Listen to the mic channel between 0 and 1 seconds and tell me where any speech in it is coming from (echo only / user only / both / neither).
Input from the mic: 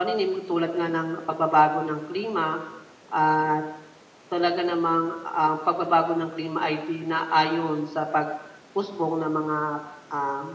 echo only